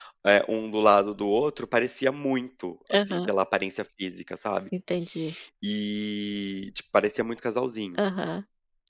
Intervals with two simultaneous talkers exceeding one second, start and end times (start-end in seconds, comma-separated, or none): none